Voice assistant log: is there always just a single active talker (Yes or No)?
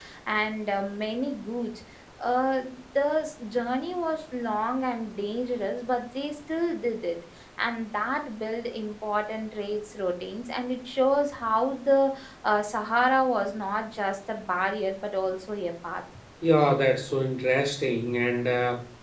Yes